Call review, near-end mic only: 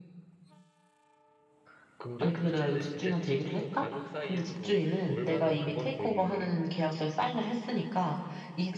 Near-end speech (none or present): present